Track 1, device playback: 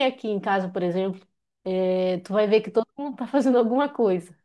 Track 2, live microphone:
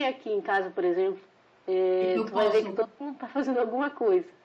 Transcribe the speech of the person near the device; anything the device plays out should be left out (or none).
Tipo, eu posso